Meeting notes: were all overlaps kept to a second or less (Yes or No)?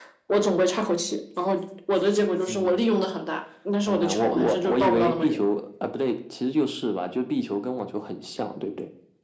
No